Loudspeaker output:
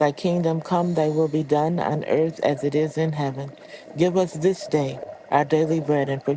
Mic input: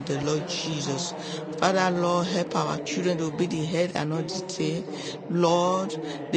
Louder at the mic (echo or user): user